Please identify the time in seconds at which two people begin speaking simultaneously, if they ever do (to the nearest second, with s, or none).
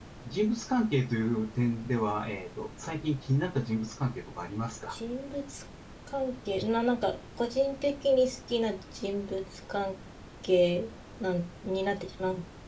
none